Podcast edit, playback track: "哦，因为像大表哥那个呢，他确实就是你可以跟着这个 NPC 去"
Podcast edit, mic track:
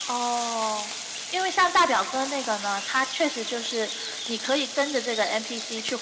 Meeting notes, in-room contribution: none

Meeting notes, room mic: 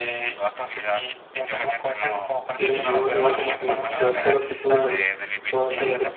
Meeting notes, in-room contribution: present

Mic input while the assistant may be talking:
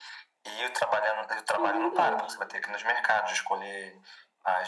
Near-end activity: present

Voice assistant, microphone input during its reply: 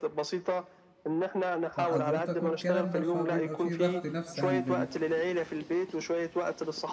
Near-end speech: present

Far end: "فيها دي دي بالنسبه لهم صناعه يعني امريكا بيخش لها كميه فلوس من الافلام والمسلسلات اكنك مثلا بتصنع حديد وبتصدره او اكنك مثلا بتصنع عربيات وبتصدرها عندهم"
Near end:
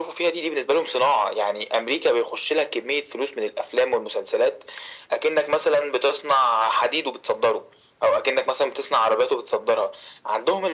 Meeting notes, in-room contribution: none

